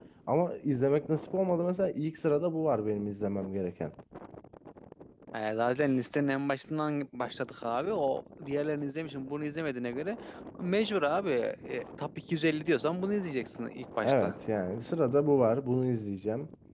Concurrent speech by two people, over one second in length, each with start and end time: none

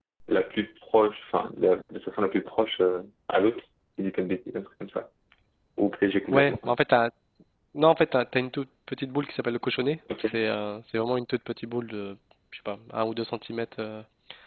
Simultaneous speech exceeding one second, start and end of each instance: none

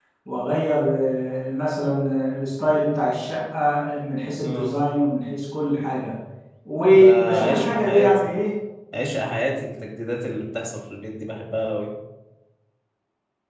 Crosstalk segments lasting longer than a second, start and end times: 6.9-8.4

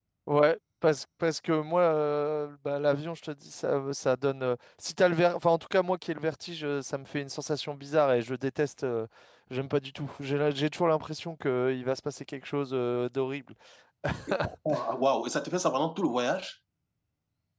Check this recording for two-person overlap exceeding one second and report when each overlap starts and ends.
none

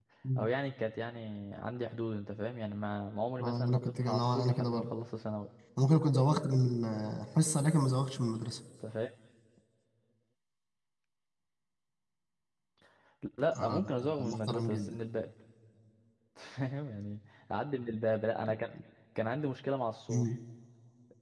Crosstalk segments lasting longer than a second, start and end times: 3.4-4.9, 13.6-15.0

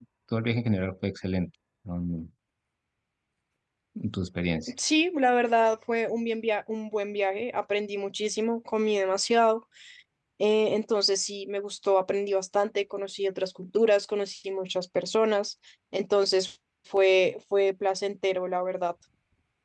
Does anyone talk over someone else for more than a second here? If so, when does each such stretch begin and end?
none

